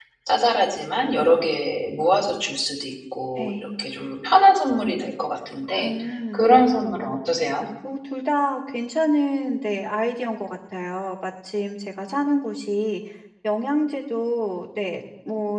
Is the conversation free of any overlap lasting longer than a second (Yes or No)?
Yes